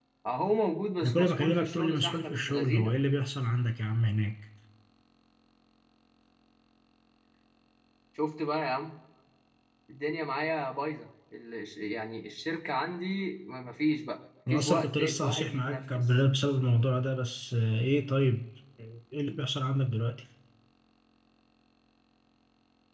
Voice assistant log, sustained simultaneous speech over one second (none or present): present